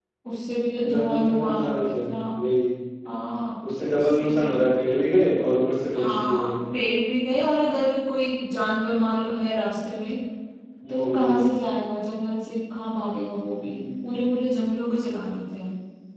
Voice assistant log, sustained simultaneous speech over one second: present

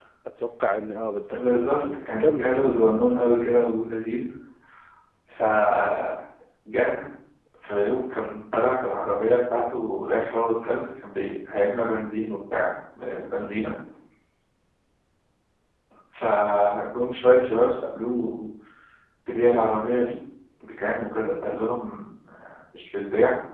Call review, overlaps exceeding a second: present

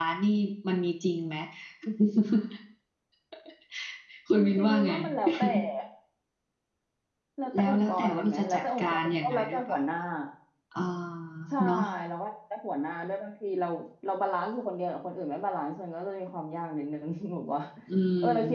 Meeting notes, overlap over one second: present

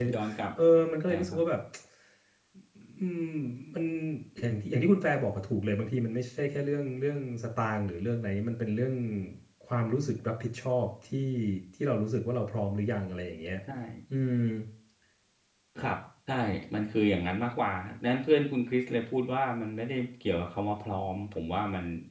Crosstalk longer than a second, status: none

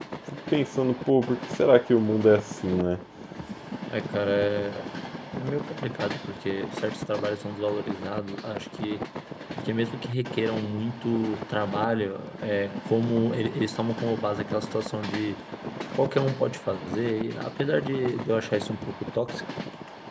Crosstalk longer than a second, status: none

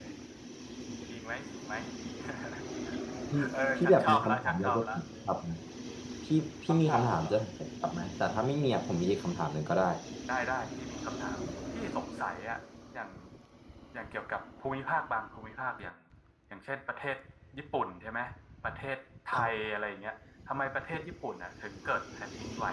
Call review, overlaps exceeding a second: present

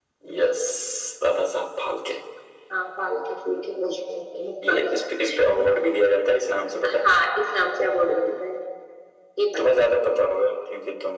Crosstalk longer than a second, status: none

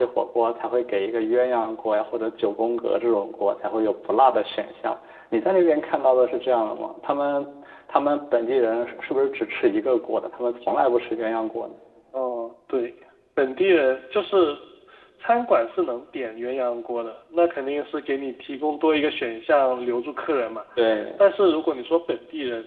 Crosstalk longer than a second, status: none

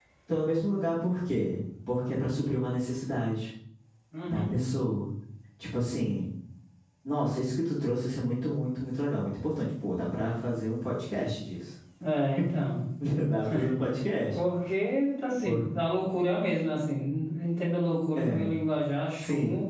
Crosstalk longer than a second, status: none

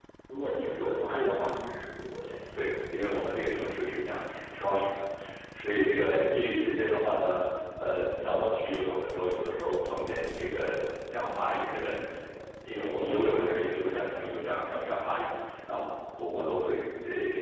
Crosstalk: none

